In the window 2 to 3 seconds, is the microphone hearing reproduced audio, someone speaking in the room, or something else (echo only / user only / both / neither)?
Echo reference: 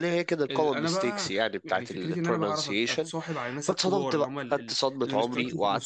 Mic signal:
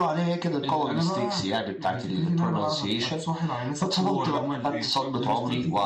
echo only